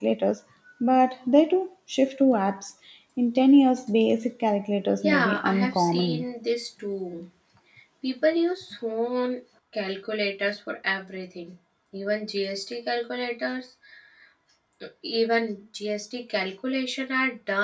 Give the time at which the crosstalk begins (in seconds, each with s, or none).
5.0 s